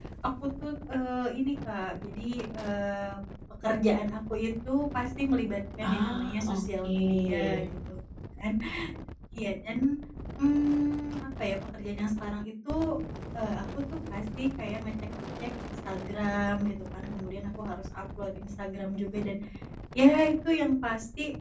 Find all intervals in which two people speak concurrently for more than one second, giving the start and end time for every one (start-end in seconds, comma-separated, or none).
5.8-7.3